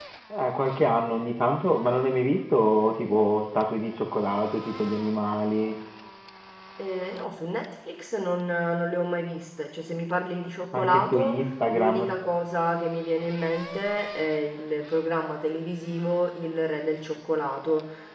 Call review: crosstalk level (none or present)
present